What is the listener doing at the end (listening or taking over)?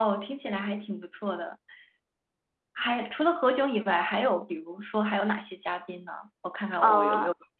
taking over